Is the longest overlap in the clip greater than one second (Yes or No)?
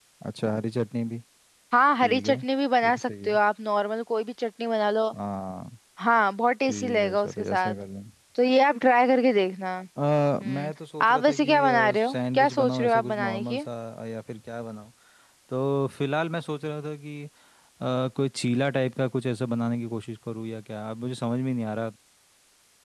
Yes